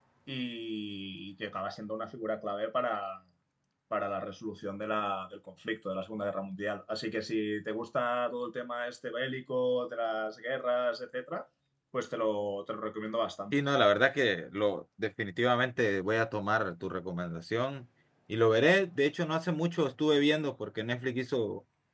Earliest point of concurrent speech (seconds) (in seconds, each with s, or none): none